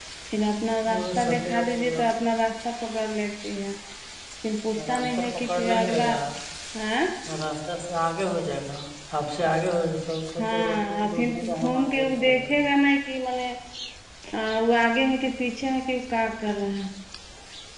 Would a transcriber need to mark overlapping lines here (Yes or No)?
Yes